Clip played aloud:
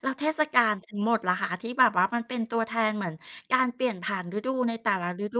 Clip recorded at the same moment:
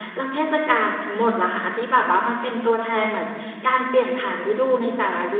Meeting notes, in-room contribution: none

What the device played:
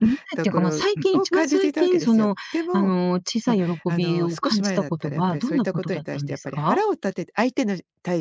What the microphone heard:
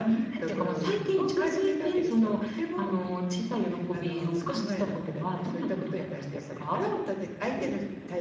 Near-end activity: none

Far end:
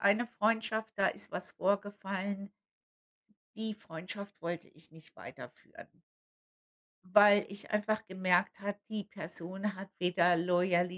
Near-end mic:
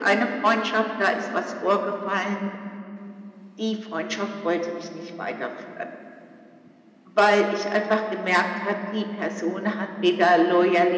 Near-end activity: none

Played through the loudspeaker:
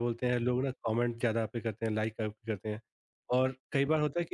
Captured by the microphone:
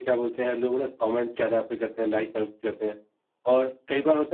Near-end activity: none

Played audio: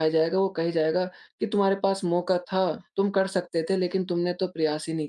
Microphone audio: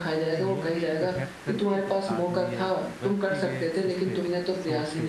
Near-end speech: present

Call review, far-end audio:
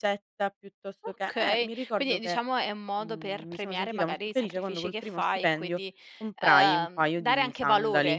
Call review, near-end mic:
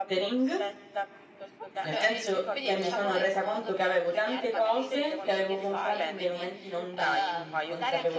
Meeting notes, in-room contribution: present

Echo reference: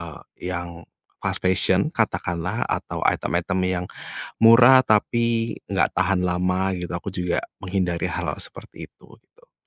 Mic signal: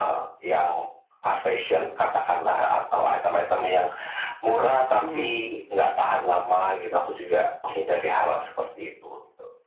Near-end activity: present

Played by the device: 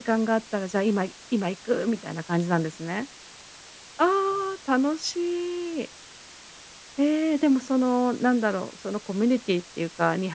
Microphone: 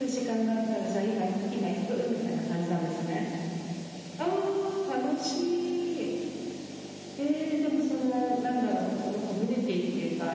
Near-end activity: none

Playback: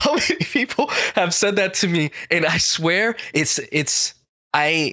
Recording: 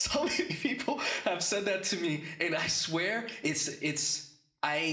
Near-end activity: none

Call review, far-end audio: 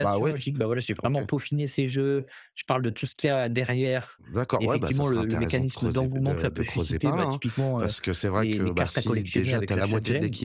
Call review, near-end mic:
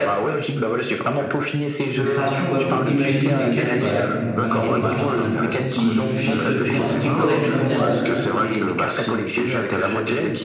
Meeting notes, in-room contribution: present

